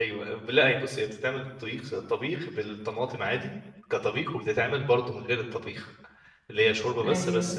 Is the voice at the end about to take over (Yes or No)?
No